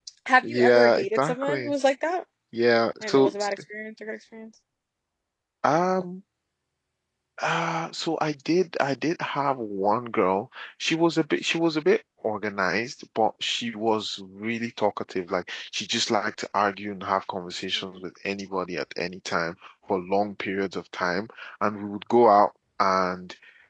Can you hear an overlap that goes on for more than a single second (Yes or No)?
Yes